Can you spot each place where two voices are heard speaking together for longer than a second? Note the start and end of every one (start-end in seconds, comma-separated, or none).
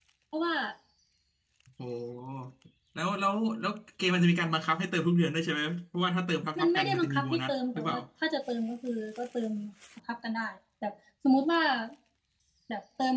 6.6-8.0